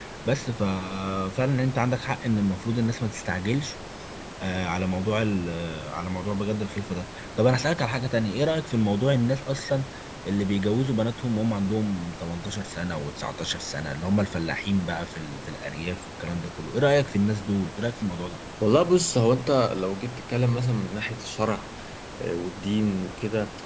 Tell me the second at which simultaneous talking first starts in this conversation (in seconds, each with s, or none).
none